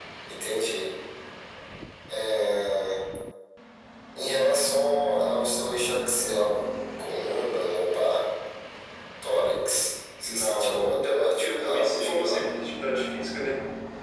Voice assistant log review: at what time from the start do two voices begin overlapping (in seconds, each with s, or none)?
10.2 s